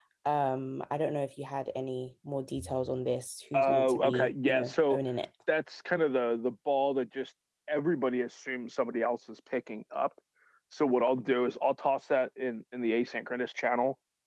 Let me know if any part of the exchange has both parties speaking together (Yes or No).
Yes